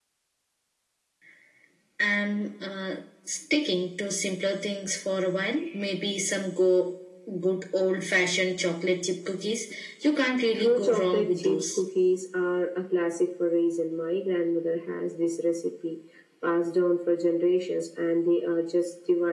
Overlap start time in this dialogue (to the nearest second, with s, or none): 11 s